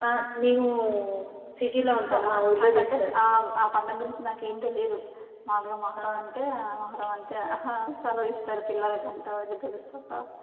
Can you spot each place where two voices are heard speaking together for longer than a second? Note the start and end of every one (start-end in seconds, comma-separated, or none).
1.9-3.1